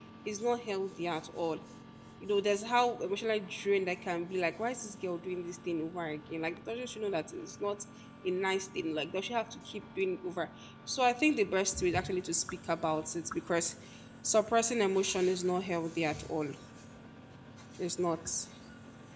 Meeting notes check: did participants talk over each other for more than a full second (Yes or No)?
No